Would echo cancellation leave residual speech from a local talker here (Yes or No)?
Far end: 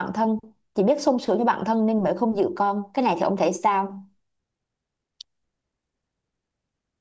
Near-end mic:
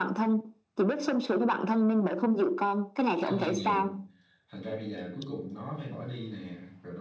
Yes